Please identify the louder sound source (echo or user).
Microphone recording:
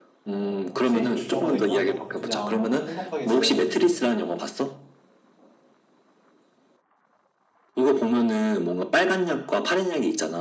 echo